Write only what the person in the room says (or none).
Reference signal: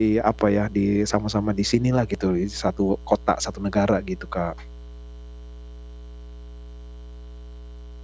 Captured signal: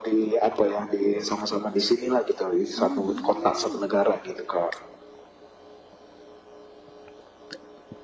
Oh, wah.